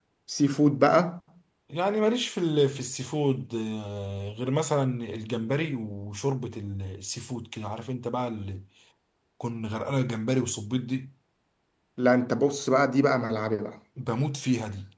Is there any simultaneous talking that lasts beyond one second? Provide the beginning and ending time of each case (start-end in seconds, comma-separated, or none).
none